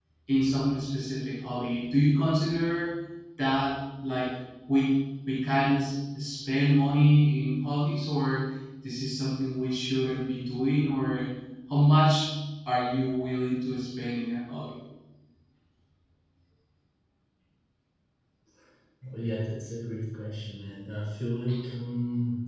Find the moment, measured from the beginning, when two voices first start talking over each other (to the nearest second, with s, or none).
none